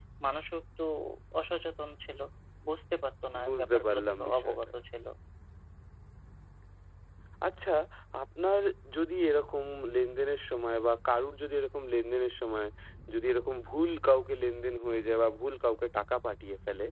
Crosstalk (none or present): present